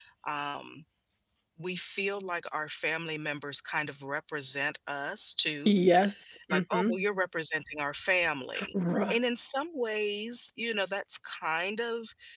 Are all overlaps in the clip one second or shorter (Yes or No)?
Yes